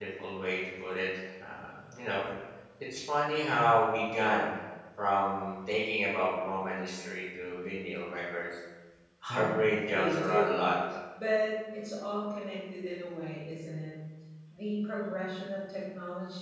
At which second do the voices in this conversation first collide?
9.3 s

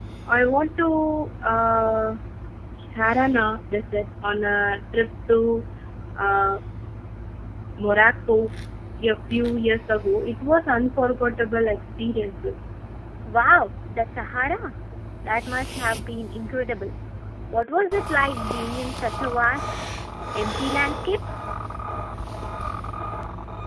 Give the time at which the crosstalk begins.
none

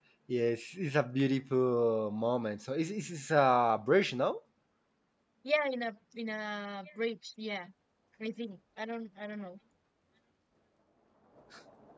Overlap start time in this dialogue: none

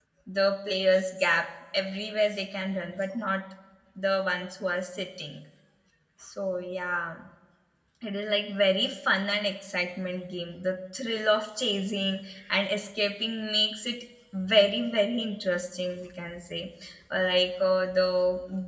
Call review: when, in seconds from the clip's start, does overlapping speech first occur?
none

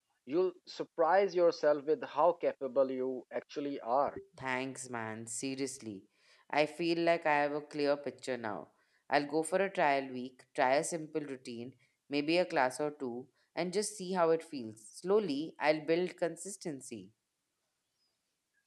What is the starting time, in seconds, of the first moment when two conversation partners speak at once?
none

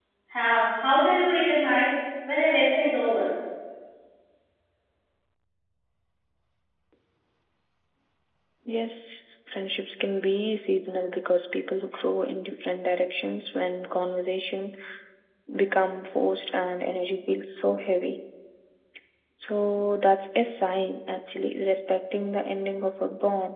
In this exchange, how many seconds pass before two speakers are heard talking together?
none

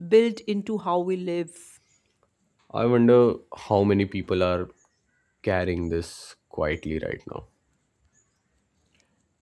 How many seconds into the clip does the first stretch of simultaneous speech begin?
none

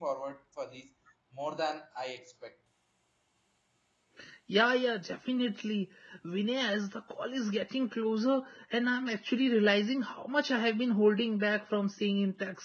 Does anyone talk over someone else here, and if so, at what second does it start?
none

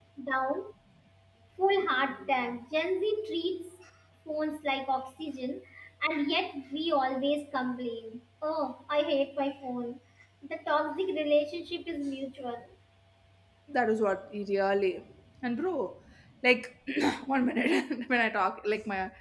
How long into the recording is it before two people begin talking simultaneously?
none

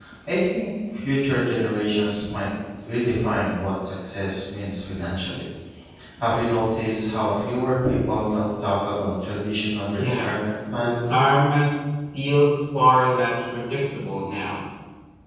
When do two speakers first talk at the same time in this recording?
9.9 s

